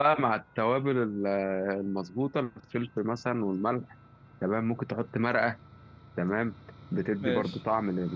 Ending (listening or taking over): listening